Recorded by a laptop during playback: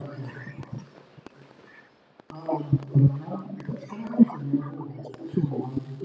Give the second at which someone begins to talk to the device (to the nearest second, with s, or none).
none